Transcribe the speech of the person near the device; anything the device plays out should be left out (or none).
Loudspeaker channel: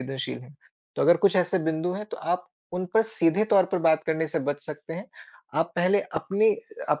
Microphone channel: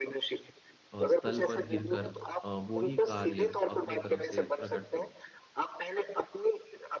अ, स्तल पर गिरकर अ, वो ही कार्य अपने तरफ से प्रकट करूँ।